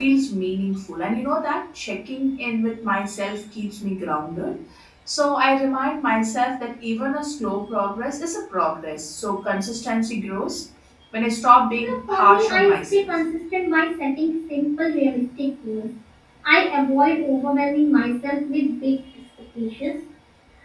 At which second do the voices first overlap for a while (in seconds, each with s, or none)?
11.8 s